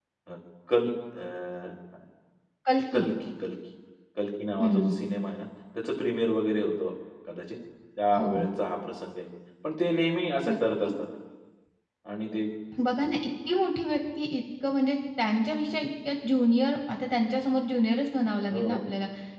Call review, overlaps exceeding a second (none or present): none